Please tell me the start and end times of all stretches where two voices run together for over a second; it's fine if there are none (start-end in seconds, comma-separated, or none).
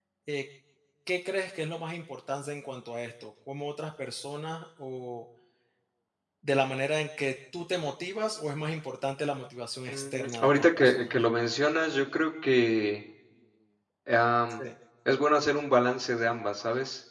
9.9-11.1